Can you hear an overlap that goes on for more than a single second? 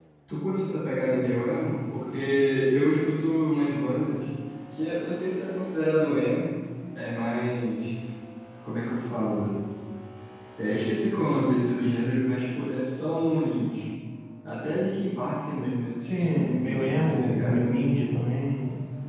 Yes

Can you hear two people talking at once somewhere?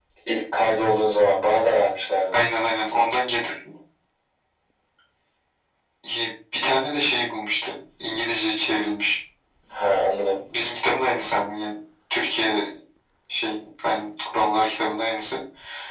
No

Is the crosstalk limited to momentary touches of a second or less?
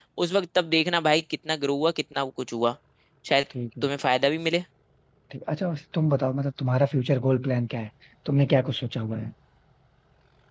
Yes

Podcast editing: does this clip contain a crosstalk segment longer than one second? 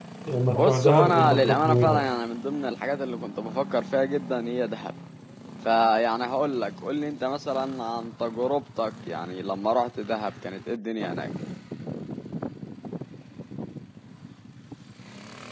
Yes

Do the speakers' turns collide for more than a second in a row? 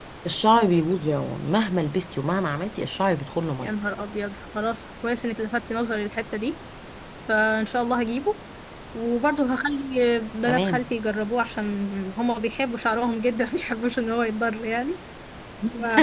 No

